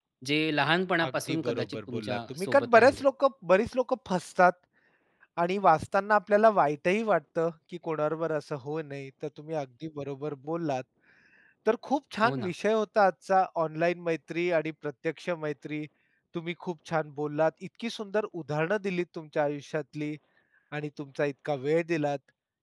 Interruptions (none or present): present